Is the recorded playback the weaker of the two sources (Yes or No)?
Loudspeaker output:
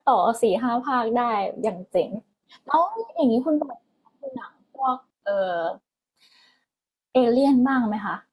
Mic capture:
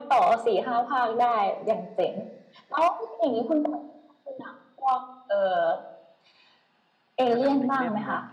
No